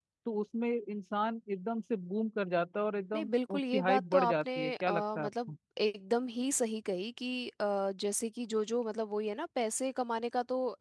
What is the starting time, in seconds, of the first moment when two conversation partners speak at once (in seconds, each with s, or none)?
3.1 s